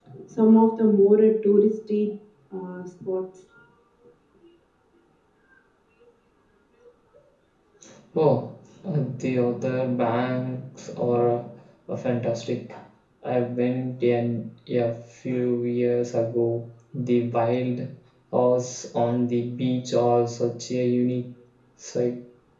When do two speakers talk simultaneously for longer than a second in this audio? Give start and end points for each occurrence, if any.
none

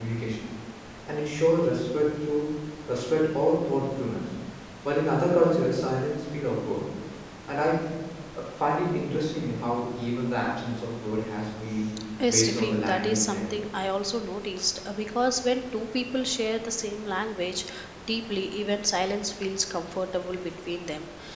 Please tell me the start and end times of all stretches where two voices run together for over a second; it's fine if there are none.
12.3-13.6

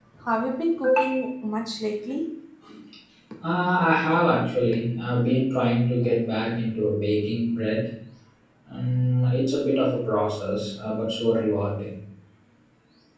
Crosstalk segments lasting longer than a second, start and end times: none

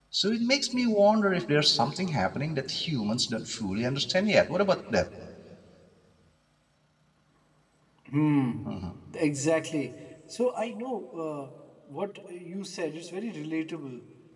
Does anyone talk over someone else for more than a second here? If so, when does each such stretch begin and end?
none

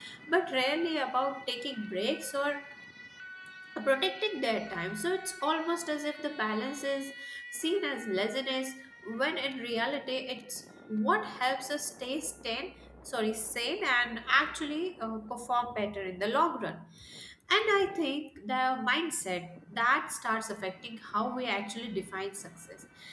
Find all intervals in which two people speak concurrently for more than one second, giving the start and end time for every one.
none

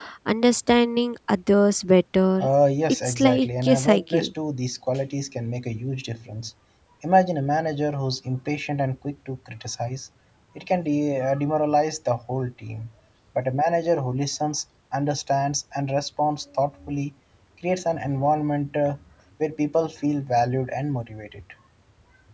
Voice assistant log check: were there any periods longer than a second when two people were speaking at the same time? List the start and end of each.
3.0-4.3

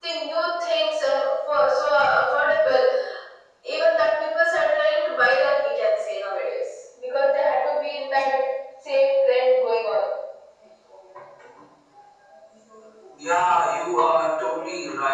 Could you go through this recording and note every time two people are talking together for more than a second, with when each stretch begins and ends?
none

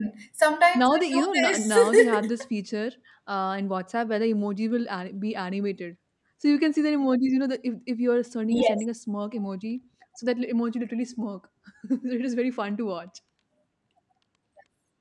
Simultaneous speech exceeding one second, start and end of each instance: 0.7-2.3

